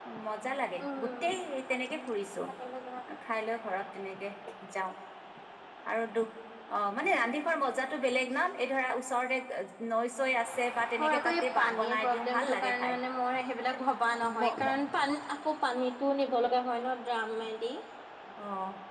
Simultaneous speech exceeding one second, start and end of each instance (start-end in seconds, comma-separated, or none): 11.0-12.9